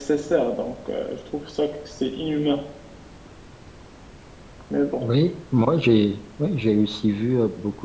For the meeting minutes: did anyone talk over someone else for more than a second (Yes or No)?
No